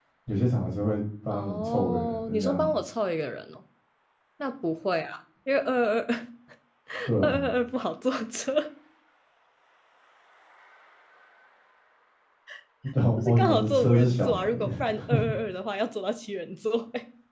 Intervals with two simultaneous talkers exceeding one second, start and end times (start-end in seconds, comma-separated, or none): 1.3-2.7, 13.2-14.7